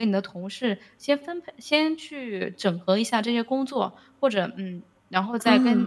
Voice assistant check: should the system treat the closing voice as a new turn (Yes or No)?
No